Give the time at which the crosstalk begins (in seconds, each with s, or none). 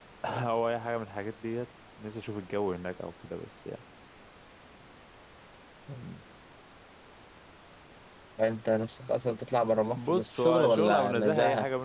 10.0 s